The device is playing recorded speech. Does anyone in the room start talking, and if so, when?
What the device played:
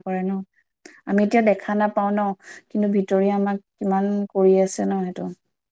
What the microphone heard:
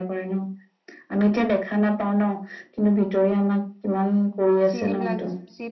5 s

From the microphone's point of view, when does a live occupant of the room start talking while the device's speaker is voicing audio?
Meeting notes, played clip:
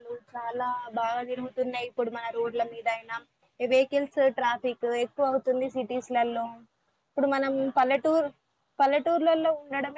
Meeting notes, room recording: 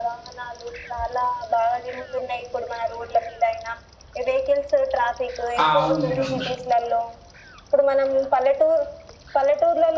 6 s

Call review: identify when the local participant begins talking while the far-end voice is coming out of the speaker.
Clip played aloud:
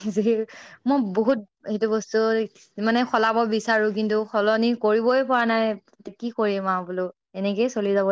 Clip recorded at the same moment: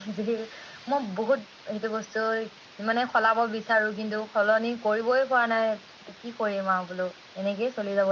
none

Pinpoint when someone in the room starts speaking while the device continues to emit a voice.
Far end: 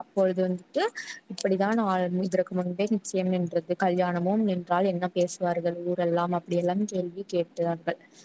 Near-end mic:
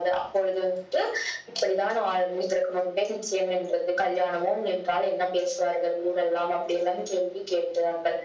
none

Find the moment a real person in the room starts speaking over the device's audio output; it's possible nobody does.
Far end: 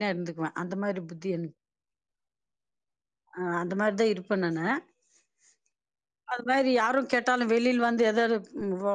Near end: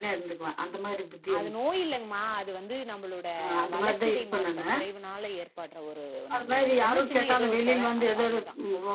1 s

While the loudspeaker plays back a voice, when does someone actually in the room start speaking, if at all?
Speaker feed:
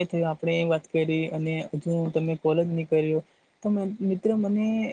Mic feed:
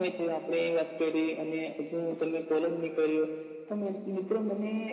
none

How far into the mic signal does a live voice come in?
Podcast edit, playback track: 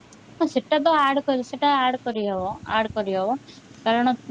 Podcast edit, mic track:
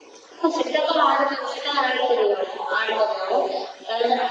none

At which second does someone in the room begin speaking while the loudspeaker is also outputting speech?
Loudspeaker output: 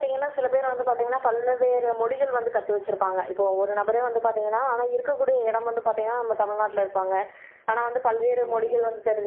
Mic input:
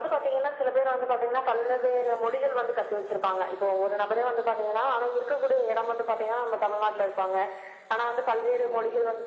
none

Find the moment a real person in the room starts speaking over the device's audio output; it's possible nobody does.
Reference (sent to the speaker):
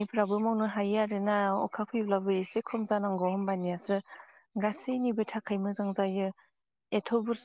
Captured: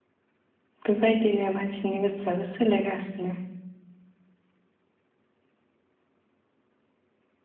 1 s

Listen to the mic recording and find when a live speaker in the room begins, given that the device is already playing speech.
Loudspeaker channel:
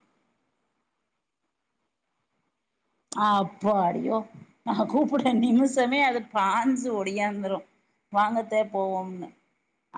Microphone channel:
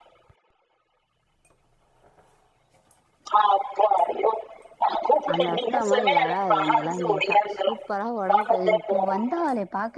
5 s

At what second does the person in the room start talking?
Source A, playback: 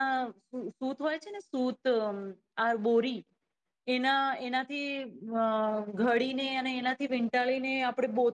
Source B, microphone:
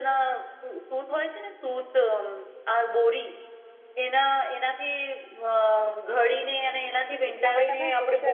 7 s

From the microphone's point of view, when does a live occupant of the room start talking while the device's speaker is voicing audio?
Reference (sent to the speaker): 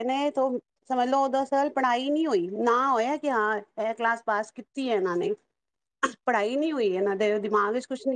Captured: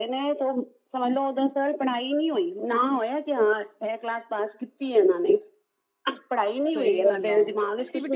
7 s

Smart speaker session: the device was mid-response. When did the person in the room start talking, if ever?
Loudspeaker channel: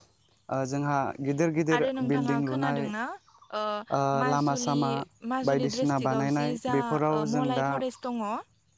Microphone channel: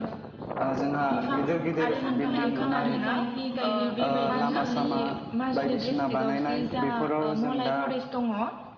1 s

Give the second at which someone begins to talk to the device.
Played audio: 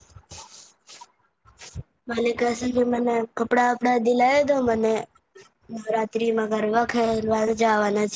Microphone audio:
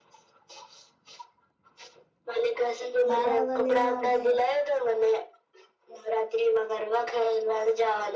3 s

